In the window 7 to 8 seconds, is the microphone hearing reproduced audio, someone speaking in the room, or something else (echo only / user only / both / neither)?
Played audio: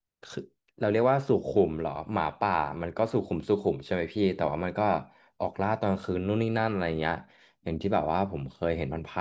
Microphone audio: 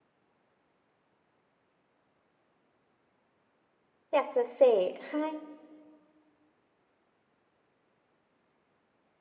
neither